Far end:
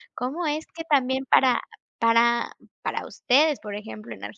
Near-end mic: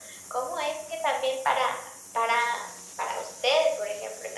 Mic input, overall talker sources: echo only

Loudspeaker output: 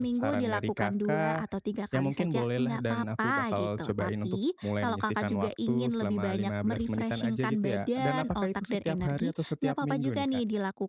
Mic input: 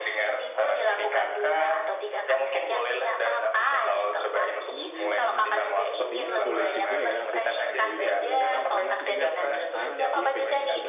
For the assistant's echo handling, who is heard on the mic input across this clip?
both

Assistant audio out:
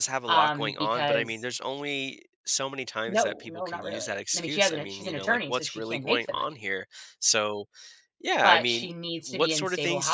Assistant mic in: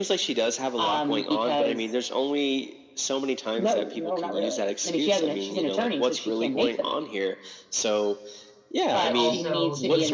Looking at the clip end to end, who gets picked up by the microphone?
both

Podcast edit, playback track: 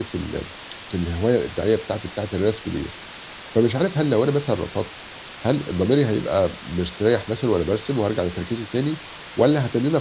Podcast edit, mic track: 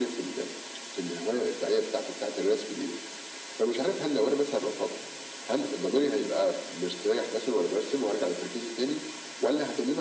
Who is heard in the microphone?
echo only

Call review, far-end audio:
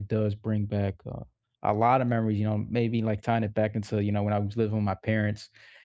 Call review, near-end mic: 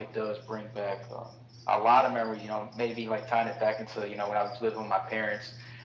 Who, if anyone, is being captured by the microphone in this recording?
echo only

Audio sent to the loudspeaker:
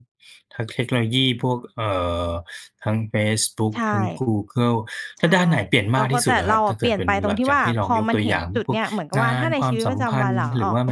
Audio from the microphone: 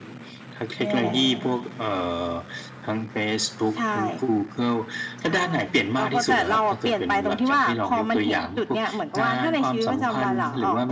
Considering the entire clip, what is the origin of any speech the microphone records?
both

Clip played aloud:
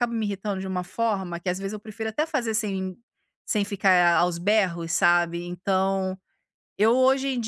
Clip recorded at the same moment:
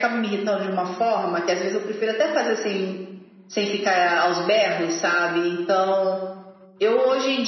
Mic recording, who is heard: echo only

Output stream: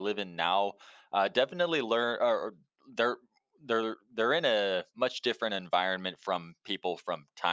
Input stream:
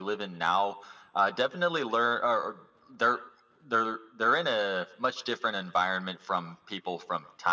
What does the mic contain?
echo only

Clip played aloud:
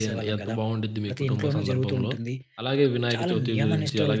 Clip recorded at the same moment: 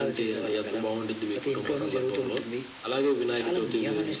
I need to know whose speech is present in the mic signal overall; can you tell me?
echo only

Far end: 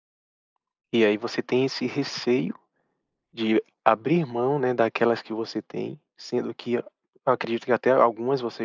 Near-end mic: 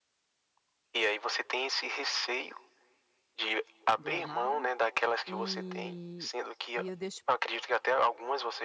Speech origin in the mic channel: both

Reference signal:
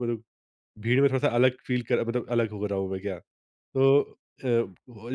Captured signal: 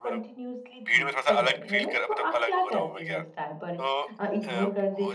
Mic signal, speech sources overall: both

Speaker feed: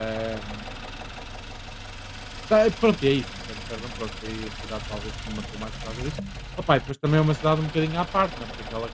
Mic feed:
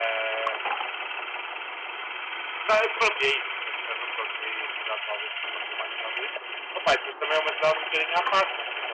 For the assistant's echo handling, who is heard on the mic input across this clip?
echo only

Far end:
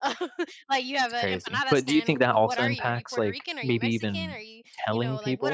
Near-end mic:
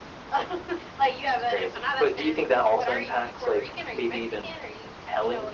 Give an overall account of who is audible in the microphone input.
echo only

